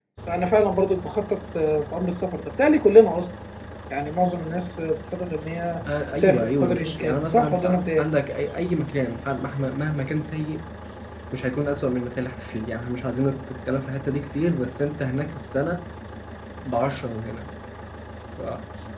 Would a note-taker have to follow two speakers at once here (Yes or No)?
Yes